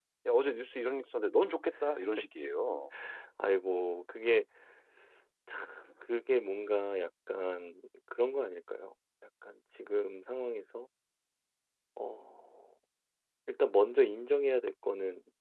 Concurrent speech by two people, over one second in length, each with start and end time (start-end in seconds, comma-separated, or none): none